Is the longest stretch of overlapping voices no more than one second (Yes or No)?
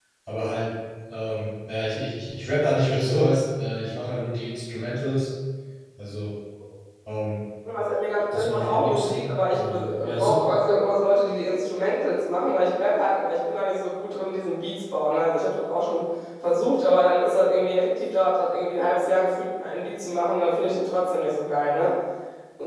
No